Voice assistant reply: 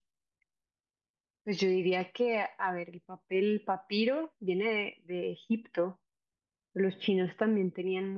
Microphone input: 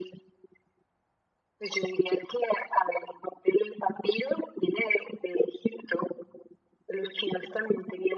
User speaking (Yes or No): No